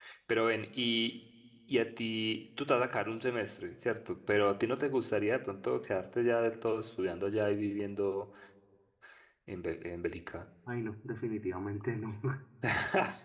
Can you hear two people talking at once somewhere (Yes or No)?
No